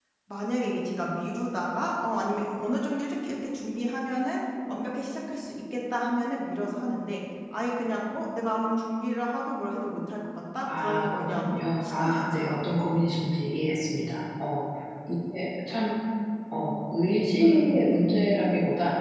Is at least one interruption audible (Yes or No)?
Yes